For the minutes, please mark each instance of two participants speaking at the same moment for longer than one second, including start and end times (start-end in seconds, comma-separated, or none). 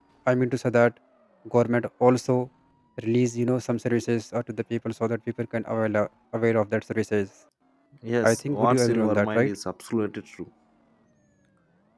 8.2-9.5